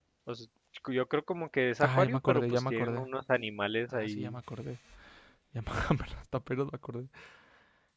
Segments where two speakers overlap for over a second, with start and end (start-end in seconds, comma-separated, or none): 1.8-3.1